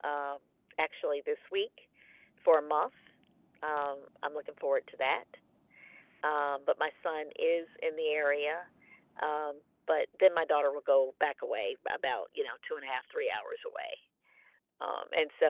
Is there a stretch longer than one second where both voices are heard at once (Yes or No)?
No